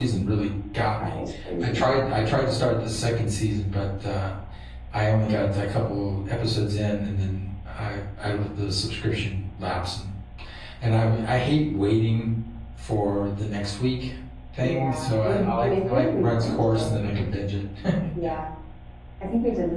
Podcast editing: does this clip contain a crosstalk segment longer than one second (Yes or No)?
Yes